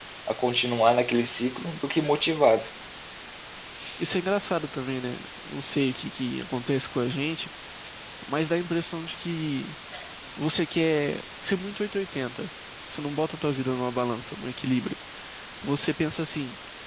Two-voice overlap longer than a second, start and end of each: none

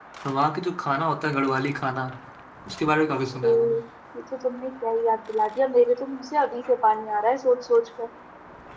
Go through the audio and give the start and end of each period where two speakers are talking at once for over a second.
none

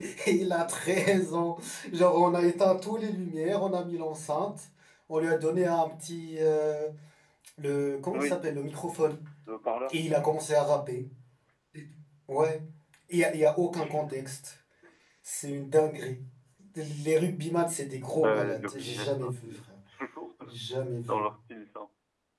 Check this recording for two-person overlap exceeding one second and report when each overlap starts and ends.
18.2-19.5

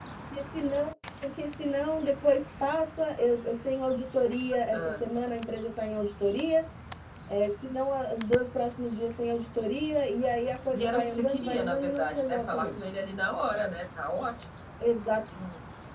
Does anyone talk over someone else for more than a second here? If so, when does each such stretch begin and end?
10.7-12.8

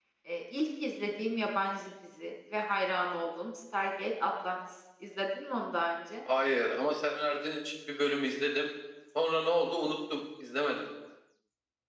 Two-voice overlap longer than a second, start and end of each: none

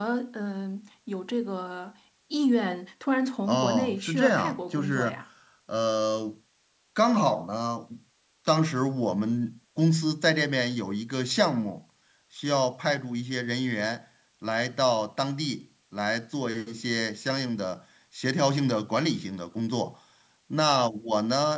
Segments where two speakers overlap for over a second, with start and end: 3.5-5.2

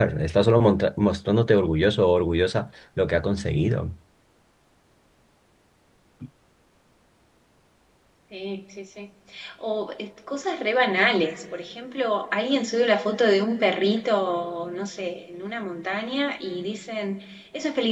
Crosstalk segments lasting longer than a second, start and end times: none

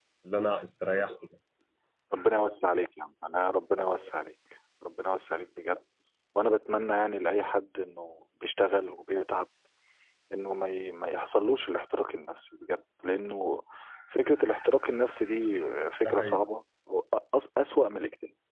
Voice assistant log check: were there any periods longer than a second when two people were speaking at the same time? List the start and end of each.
none

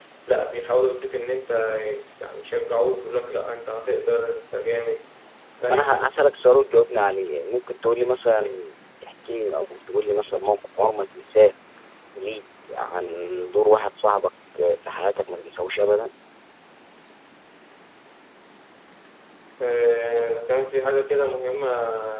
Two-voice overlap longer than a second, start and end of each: none

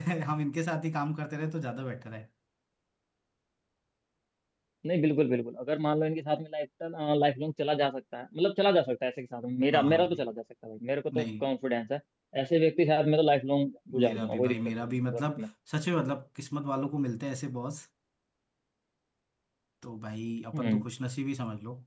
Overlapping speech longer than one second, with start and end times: 14.0-15.4

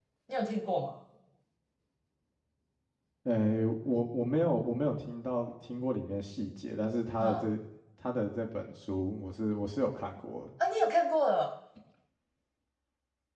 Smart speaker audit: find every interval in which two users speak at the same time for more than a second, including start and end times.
none

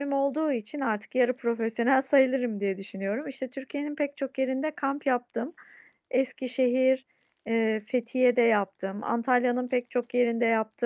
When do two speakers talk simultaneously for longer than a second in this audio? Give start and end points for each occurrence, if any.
none

